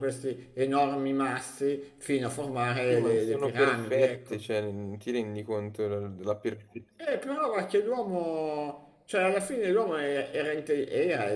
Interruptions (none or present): present